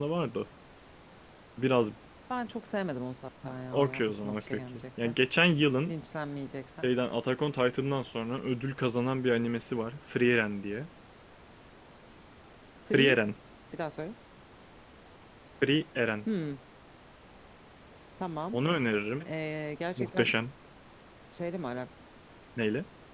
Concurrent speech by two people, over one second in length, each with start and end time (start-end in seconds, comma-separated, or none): 3.7-5.2